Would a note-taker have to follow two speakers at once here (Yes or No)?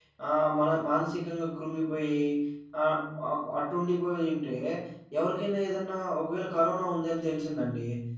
No